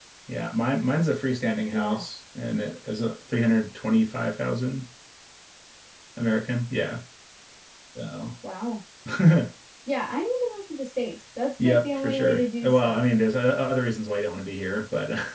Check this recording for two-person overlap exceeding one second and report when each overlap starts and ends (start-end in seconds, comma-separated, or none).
11.6-13.0